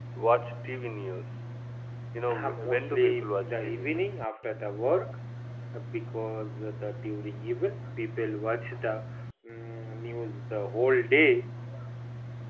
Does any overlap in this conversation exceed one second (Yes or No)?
Yes